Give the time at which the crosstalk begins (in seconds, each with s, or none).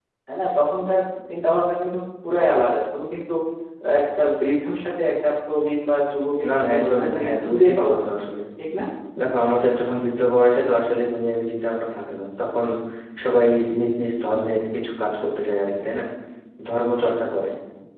6.4 s